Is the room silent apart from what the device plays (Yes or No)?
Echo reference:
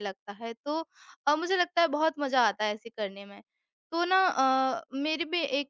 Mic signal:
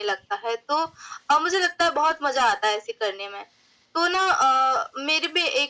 Yes